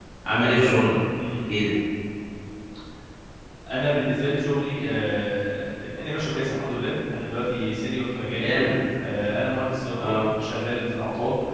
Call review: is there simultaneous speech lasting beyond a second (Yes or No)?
No